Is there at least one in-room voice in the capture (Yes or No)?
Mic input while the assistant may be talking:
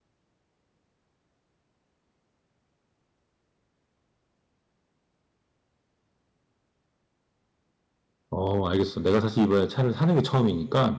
Yes